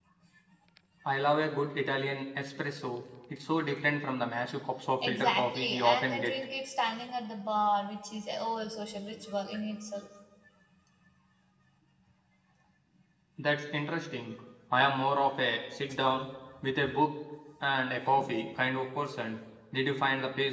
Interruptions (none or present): present